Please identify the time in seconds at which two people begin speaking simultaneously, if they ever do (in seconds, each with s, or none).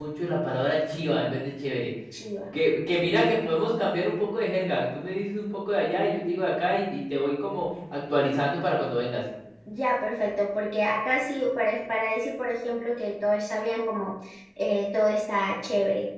none